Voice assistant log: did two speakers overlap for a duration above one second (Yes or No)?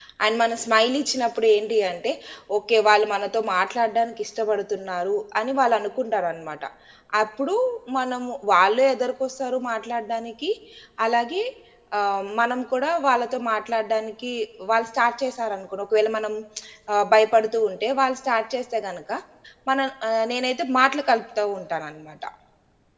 No